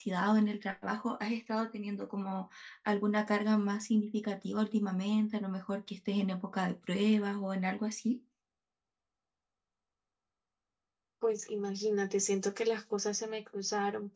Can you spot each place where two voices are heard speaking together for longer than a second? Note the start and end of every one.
none

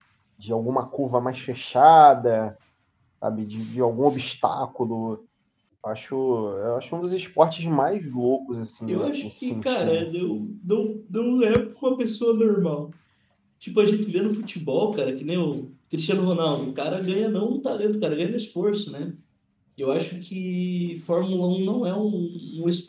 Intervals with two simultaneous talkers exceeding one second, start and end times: 8.9-10.1

